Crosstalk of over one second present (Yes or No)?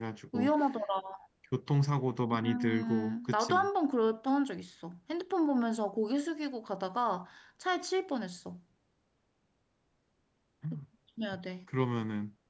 Yes